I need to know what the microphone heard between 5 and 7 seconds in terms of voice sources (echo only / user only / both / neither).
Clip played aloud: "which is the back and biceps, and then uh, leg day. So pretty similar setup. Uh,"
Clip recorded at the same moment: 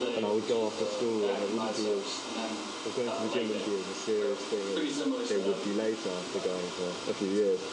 both